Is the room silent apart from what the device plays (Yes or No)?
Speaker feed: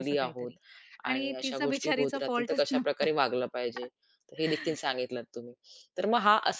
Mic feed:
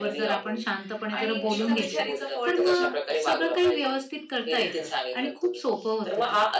No